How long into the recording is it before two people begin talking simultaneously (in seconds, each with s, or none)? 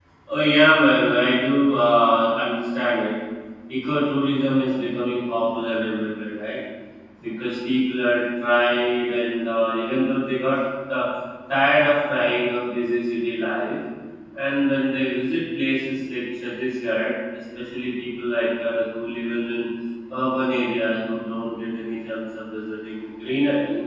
none